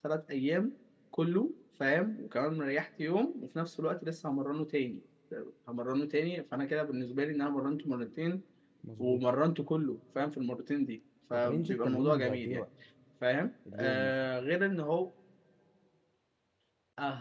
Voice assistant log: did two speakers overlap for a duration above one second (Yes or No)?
Yes